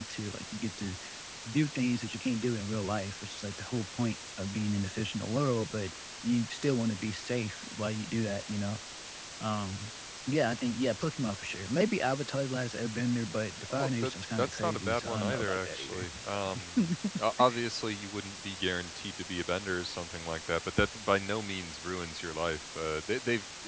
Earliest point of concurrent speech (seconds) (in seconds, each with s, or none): 13.7 s